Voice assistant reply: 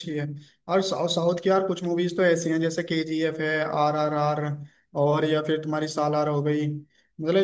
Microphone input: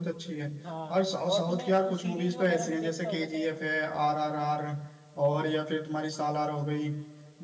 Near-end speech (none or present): present